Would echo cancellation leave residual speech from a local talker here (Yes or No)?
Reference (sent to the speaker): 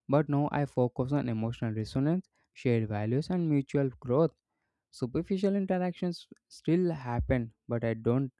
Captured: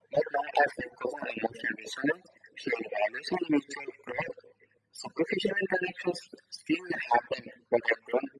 No